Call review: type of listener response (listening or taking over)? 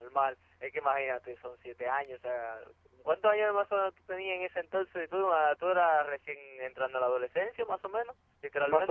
taking over